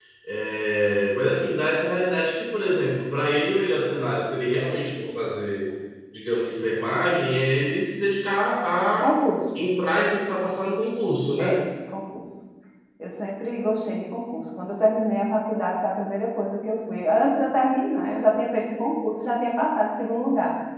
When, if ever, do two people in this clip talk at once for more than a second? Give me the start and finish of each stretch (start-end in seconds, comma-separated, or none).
none